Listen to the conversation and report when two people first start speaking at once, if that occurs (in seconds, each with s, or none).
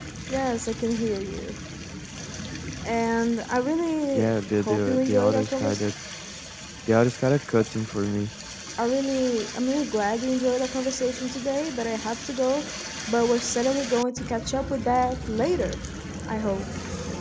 4.1 s